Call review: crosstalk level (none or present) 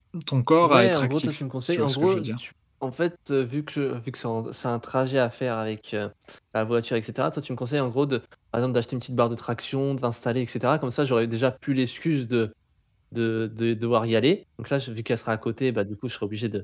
present